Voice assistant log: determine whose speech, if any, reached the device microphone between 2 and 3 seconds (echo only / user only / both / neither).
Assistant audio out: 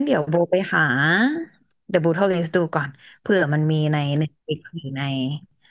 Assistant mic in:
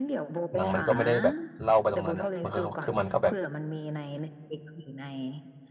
both